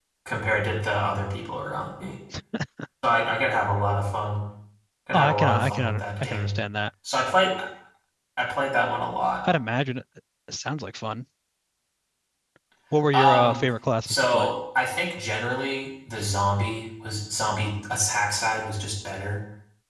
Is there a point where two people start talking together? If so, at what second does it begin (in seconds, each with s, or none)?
5.1 s